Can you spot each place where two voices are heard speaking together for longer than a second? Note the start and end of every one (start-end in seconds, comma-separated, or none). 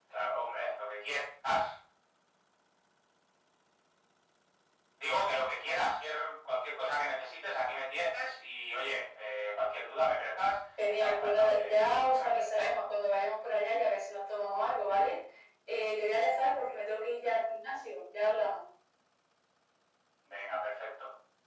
10.9-12.7